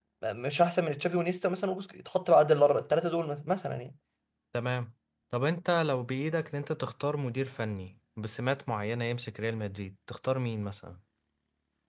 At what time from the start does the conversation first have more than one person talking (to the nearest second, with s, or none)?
none